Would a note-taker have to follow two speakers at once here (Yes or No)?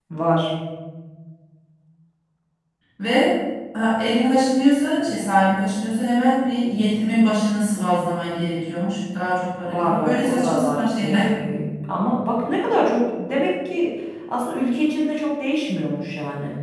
Yes